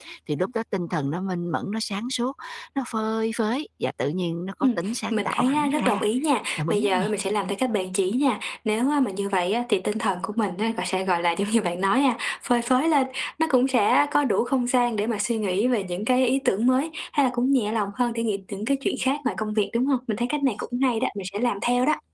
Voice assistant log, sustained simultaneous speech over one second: present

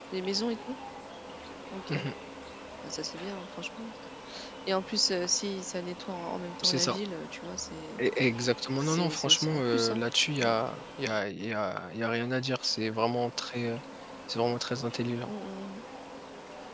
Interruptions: present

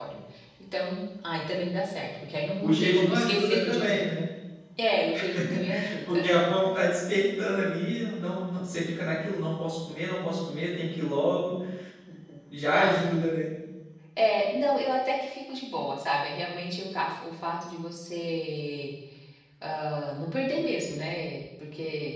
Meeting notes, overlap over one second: present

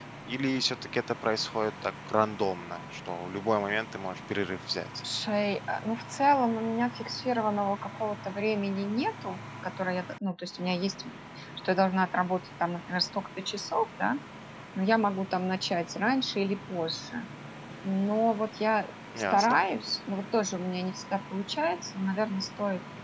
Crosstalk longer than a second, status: none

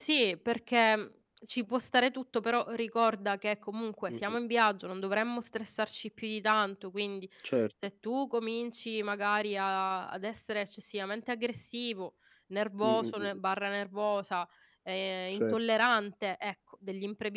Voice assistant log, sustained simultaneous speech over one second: none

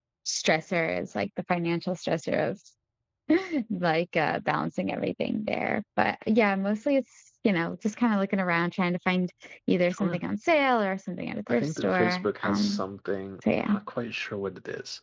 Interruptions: present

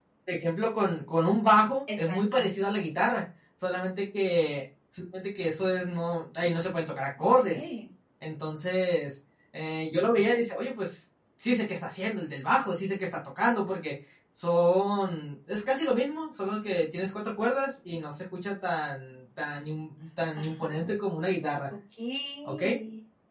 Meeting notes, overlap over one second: none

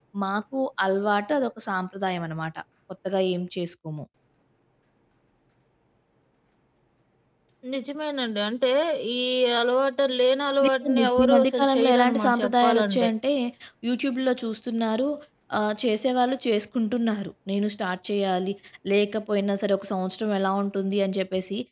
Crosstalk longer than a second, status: present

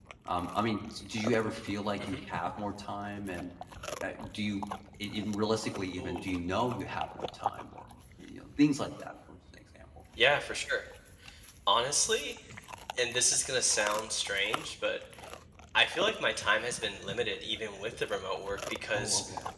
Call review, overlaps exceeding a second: none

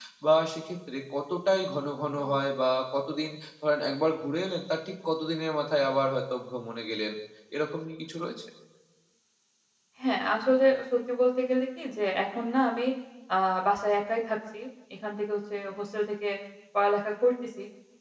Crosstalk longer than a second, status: none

